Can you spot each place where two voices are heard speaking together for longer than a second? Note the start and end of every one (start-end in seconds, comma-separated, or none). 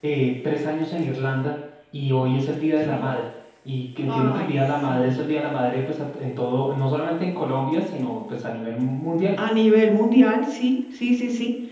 4.1-5.3